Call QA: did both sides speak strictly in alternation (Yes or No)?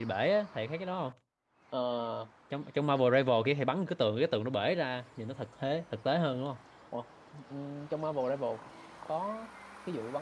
Yes